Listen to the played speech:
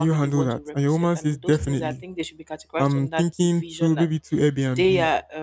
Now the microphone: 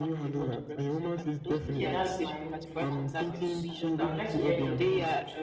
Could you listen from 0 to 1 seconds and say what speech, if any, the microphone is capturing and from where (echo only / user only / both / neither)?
echo only